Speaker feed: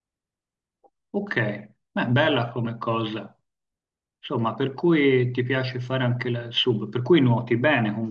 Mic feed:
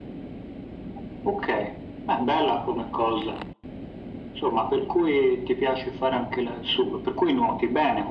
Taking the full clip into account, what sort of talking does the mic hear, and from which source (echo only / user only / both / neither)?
echo only